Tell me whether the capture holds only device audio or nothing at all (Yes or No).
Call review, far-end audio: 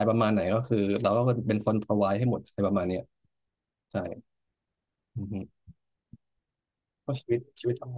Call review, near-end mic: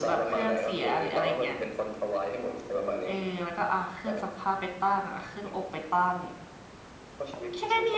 No